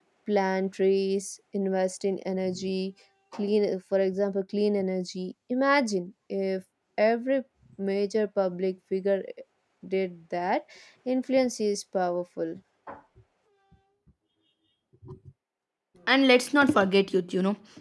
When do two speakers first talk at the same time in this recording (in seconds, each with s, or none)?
none